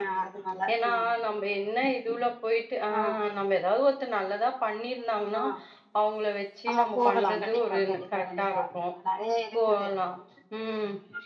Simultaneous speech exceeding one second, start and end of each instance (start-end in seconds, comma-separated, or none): 6.7-8.7